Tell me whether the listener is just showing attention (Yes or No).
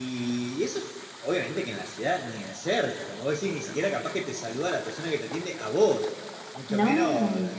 Yes